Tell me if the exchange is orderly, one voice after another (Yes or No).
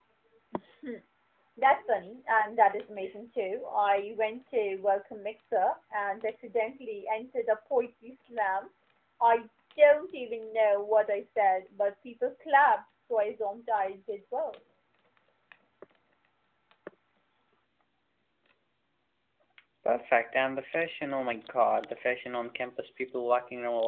Yes